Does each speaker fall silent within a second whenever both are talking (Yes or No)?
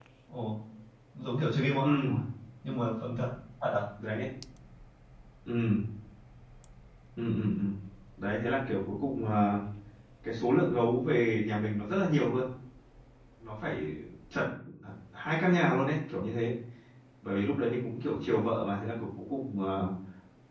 Yes